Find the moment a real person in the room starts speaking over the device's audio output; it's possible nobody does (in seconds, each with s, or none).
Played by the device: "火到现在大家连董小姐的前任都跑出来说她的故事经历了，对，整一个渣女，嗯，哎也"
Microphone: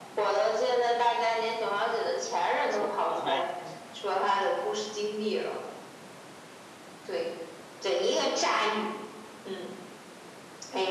2.7 s